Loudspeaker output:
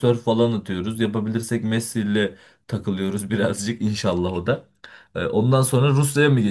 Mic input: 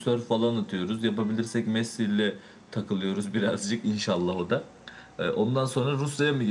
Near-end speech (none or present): none